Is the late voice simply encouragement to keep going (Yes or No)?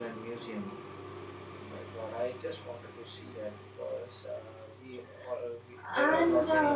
No